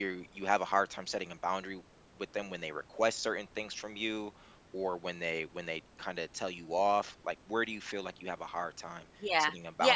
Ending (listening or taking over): taking over